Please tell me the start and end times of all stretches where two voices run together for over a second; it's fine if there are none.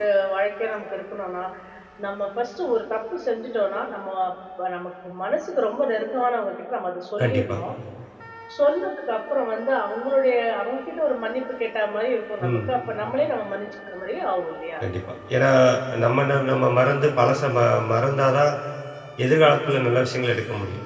none

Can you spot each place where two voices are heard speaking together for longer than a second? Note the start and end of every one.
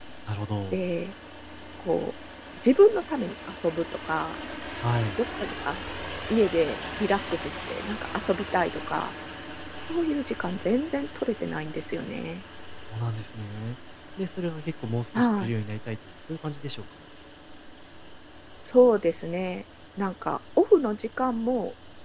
none

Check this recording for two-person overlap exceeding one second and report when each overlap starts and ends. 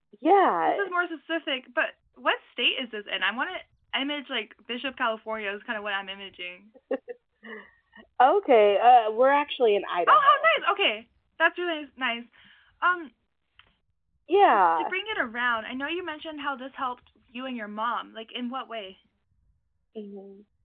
none

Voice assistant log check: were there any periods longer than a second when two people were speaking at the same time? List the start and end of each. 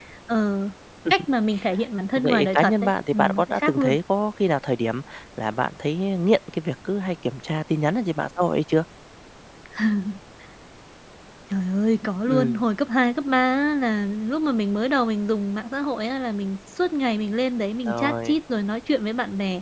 2.2-3.9

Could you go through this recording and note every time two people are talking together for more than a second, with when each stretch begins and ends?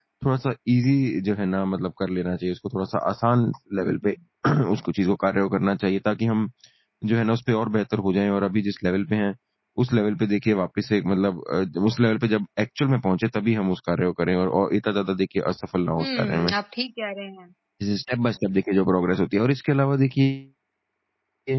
none

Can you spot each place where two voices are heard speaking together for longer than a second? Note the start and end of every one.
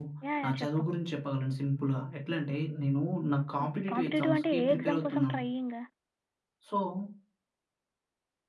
3.6-5.4

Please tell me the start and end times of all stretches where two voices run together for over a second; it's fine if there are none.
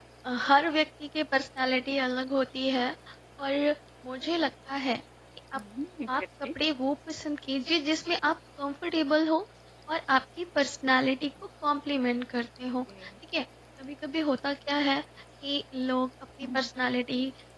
none

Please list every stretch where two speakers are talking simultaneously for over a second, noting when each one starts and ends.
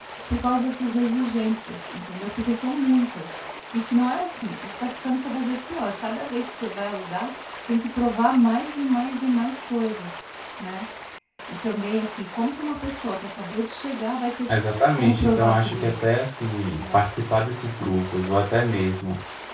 14.9-16.2

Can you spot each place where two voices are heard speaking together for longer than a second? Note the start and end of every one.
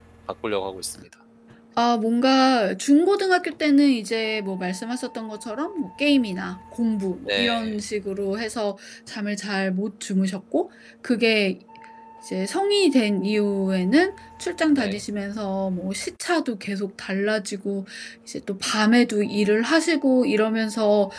none

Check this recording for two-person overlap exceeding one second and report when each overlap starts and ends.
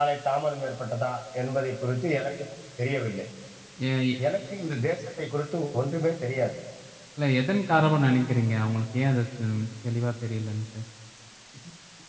none

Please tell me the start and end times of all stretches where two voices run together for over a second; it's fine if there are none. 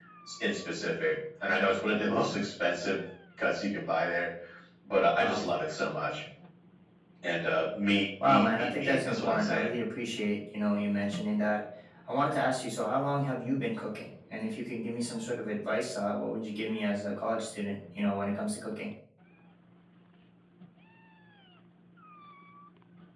8.3-9.8

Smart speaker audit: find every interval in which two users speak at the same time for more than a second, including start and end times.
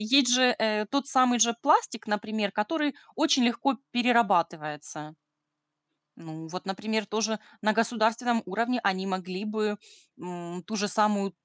none

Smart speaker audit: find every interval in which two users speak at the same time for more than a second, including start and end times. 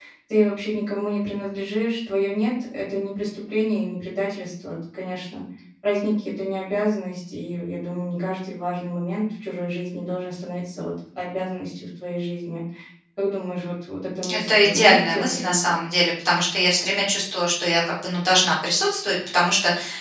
14.3-15.8

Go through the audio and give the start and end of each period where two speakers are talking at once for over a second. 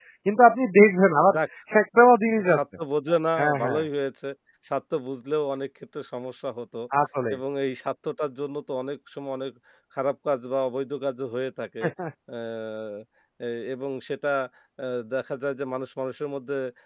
none

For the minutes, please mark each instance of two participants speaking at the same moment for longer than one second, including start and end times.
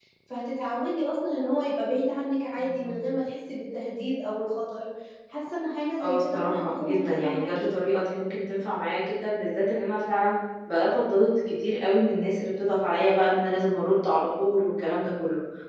6.0-7.6

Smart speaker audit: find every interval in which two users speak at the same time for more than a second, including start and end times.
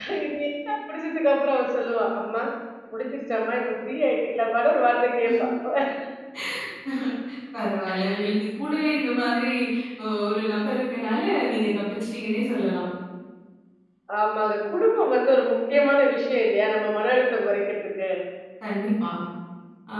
none

